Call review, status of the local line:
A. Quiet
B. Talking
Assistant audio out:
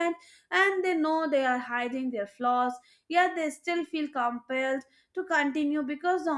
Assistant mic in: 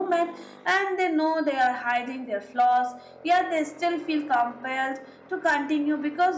A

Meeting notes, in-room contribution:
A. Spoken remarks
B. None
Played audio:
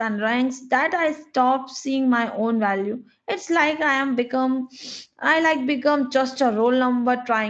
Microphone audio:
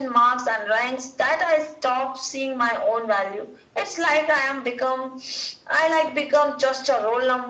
B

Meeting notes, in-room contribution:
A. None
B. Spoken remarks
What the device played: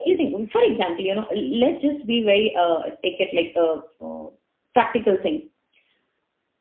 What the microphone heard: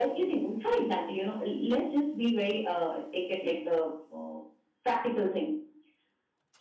A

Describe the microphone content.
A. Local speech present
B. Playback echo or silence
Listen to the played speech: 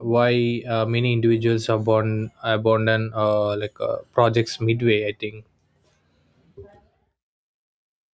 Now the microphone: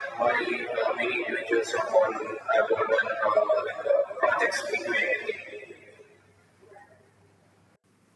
B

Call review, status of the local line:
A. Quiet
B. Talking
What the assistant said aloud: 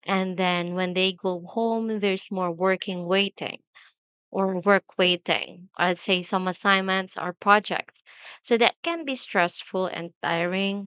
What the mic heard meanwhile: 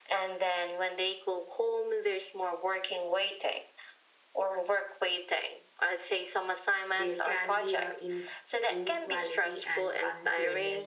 B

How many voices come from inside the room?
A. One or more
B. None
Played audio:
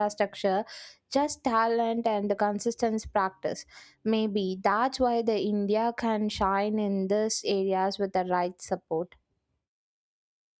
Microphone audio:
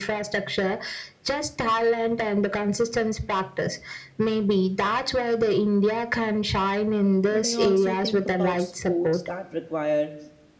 A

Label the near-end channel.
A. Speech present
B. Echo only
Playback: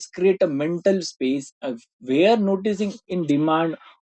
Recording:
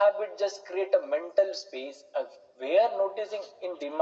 B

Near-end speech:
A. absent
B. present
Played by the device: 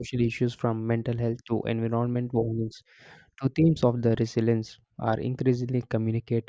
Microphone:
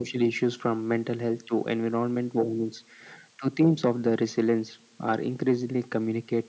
A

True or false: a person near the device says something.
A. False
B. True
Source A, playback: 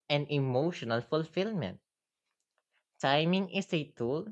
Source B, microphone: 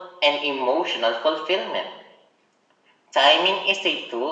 A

